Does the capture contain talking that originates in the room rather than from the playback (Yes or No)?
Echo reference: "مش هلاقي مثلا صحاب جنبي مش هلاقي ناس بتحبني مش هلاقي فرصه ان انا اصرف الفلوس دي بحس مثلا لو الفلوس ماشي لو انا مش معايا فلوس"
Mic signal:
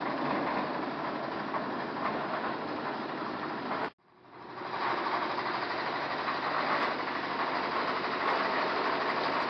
No